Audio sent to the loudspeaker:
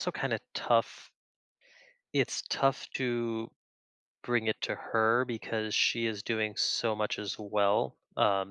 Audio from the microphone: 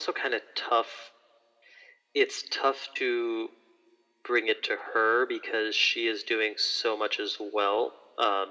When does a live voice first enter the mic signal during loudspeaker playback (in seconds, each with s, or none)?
none